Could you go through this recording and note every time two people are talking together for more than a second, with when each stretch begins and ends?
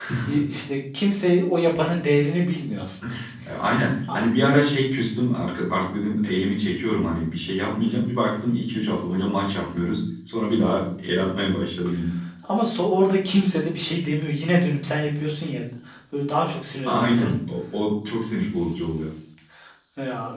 none

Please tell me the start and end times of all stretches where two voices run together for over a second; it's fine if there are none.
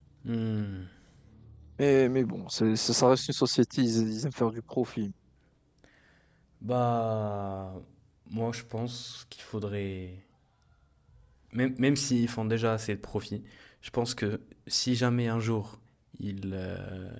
none

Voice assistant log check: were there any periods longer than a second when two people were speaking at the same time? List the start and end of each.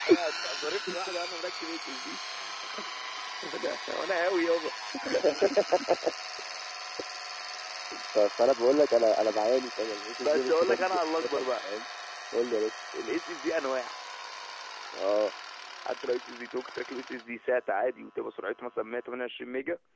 10.2-11.5

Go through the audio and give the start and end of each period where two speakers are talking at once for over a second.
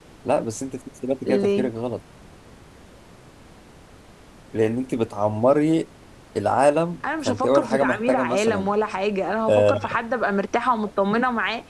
7.2-8.7

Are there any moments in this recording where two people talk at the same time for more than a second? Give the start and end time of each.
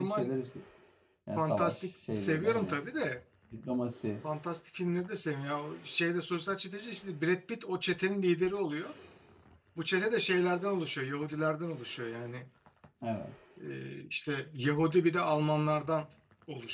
1.4-2.8

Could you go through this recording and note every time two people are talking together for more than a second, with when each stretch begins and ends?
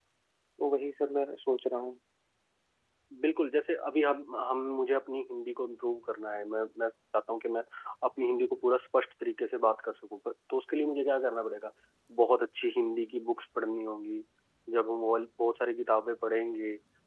none

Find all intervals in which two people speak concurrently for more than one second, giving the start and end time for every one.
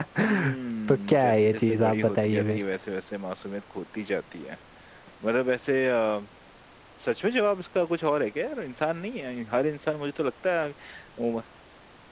0.9-2.6

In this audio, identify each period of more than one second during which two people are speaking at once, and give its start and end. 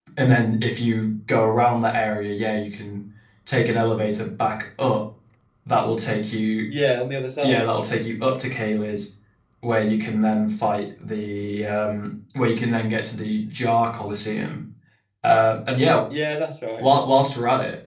none

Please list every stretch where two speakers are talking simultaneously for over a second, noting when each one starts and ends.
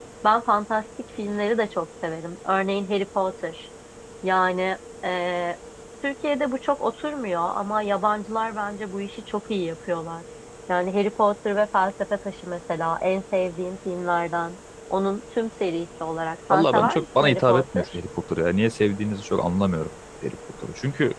16.5-17.9

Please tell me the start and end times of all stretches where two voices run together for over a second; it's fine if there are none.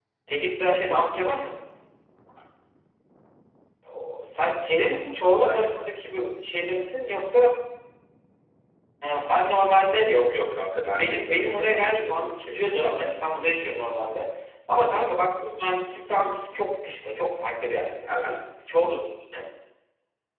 10.8-12.9

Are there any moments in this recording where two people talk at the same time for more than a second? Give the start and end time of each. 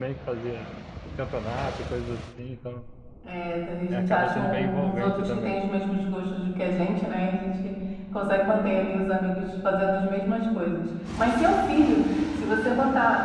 3.9-5.6

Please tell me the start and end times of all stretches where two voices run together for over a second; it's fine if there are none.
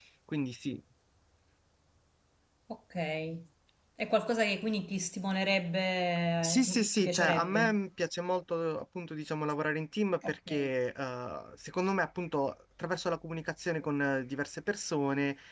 6.4-7.8

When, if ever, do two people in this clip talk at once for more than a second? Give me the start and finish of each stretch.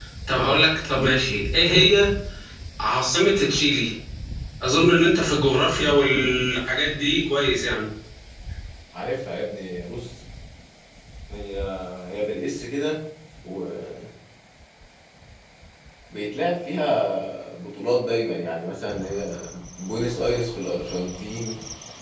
none

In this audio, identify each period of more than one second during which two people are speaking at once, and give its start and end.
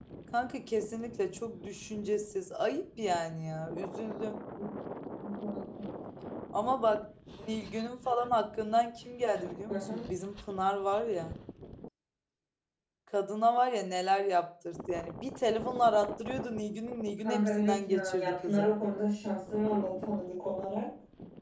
17.2-18.7

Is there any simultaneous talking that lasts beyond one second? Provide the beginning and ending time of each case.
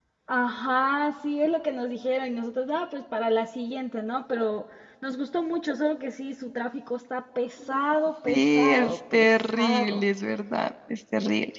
8.3-10.0

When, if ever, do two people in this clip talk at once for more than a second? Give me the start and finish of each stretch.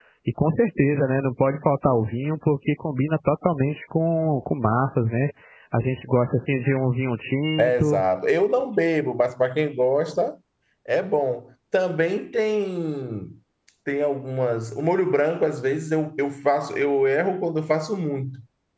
none

